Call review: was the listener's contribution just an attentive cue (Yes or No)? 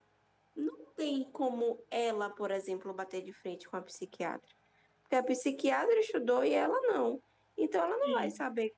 Yes